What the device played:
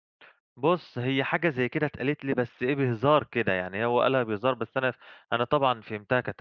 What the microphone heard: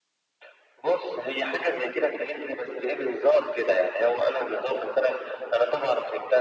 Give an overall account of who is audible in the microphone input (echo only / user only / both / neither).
echo only